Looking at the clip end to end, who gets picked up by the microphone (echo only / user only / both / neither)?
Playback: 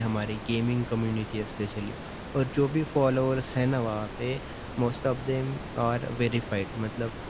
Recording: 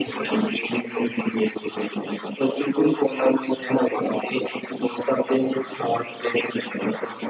echo only